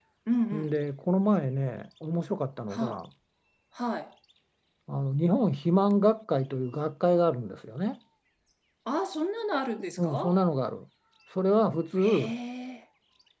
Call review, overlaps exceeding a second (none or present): none